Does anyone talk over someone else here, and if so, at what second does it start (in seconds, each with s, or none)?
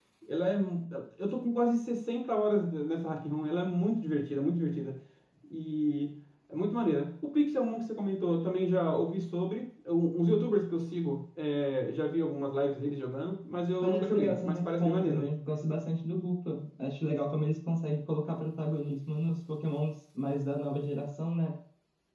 13.8 s